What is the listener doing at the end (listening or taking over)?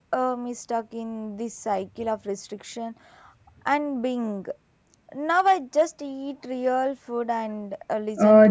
taking over